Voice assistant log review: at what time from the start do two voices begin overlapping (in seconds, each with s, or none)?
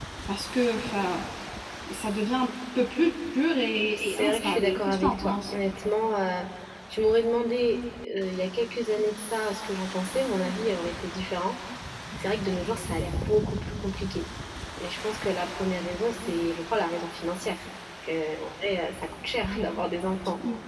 3.9 s